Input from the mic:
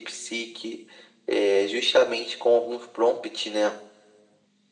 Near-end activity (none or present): none